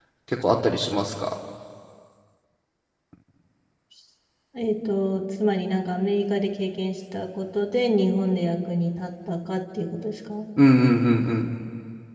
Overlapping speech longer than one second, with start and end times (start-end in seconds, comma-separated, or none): none